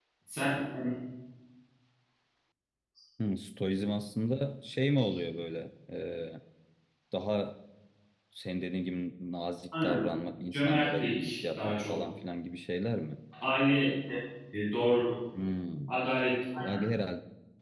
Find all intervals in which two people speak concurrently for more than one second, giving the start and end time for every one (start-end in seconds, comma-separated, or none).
10.5-12.0